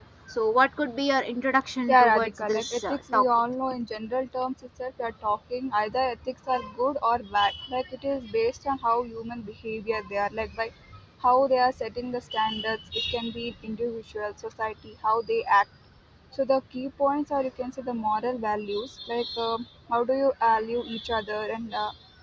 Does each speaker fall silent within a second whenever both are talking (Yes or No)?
No